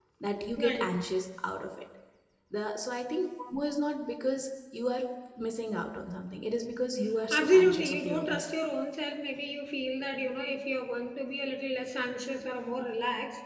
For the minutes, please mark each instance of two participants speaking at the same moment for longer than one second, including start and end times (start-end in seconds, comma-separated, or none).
7.3-8.6